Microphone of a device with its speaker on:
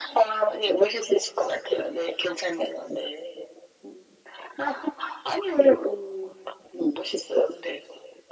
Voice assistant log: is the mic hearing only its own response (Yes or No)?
Yes